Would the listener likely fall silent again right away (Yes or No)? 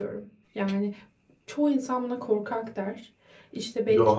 Yes